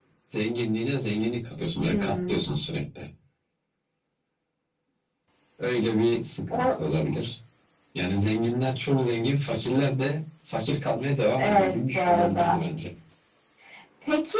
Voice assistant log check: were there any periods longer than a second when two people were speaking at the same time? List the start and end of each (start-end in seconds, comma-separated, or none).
11.4-12.6